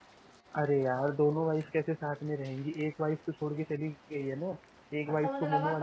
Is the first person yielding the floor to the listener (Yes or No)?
Yes